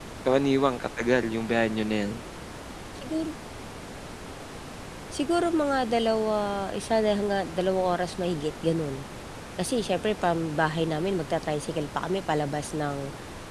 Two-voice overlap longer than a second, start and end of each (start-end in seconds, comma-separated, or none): none